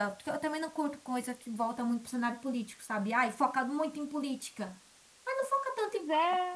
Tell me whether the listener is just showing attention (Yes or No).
Yes